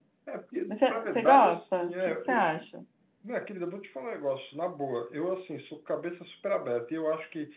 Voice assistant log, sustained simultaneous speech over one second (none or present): present